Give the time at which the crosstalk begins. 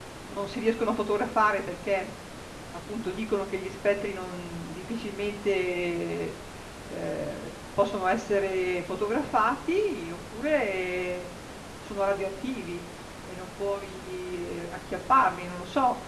none

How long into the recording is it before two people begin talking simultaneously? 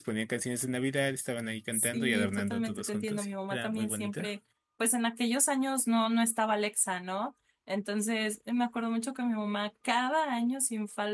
1.7 s

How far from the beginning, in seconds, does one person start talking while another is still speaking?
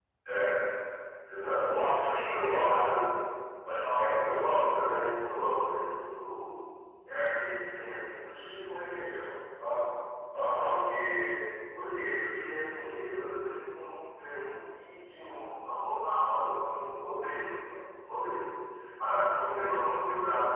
1.4 s

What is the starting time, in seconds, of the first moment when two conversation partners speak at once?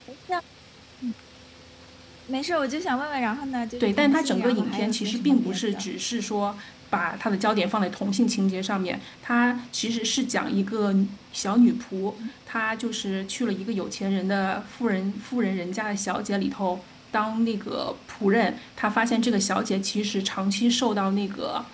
3.8 s

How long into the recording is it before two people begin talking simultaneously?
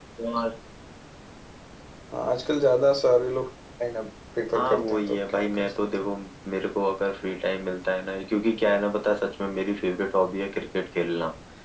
4.5 s

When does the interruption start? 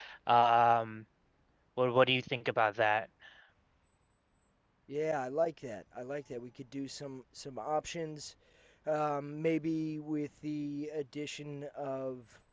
none

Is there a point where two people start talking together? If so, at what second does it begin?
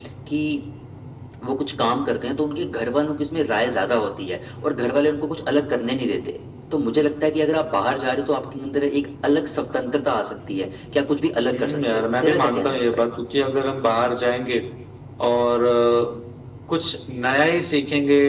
11.5 s

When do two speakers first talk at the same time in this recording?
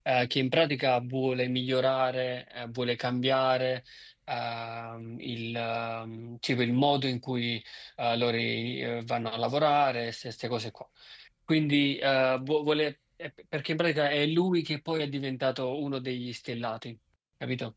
none

